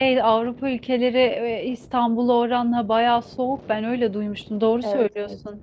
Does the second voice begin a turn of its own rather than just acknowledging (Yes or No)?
Yes